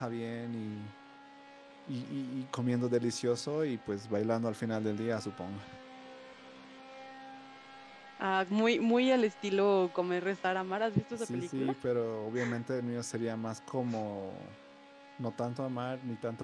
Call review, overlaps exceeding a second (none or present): none